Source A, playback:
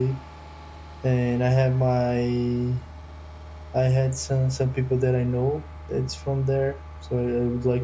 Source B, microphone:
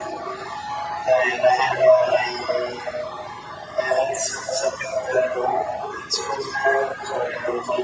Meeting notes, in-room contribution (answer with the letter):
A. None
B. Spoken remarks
A